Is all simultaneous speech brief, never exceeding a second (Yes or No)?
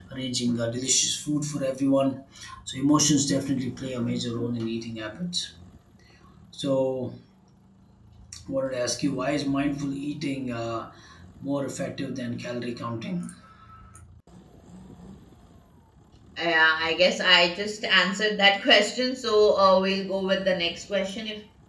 Yes